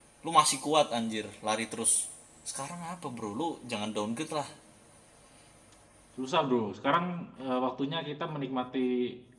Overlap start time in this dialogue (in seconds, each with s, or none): none